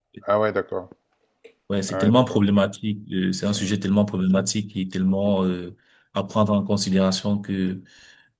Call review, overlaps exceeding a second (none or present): none